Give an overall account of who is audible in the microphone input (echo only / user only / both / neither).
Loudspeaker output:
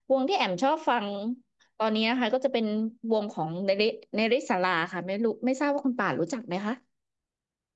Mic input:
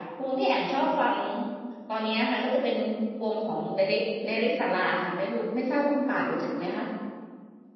echo only